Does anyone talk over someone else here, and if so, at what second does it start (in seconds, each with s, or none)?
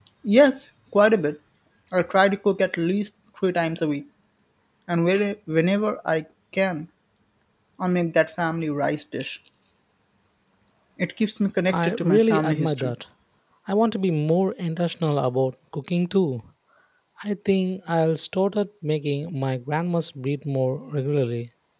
11.7 s